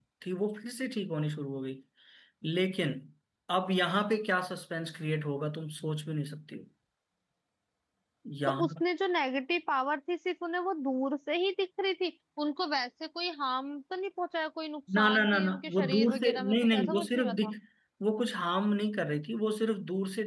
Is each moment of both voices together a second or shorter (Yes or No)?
No